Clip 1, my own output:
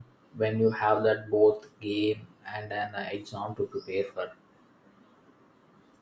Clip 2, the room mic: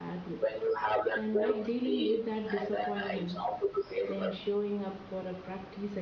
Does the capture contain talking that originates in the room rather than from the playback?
Yes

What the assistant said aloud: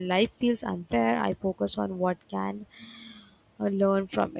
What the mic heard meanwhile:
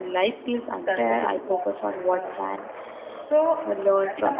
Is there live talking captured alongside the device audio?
Yes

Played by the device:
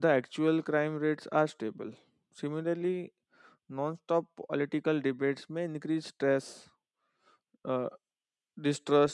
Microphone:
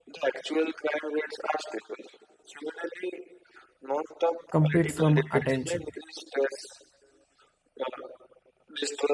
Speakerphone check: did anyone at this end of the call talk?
Yes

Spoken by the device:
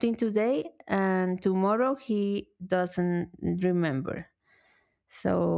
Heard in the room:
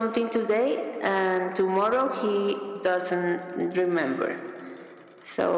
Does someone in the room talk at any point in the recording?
No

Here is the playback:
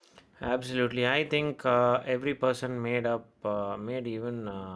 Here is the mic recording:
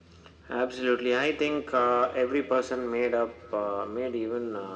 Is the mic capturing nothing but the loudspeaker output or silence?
Yes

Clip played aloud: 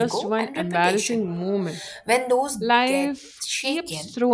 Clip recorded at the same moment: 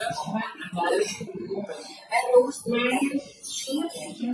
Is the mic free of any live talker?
Yes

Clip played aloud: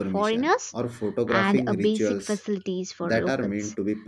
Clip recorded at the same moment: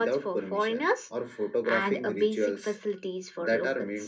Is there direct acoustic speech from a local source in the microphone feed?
No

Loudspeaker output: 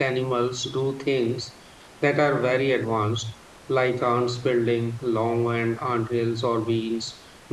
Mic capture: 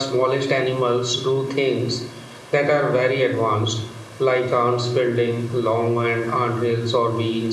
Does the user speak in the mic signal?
No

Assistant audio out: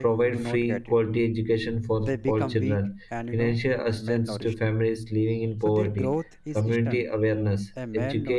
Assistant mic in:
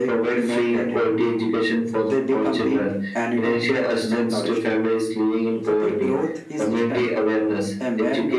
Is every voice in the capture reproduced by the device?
Yes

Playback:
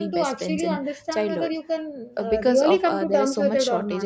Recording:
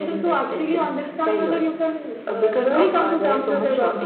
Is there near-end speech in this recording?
No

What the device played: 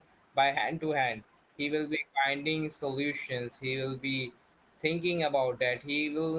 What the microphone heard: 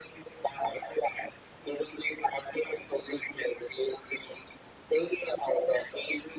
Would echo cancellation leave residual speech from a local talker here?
No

